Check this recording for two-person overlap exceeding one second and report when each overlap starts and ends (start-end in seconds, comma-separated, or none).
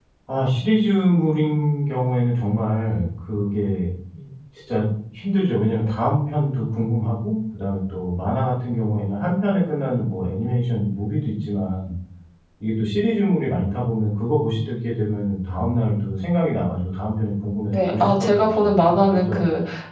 17.7-19.4